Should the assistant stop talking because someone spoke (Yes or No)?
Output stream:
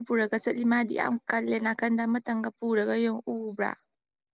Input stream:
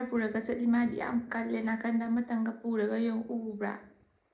No